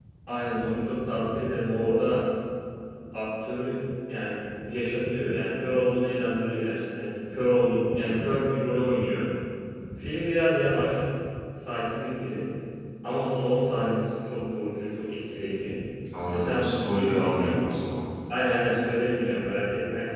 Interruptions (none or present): present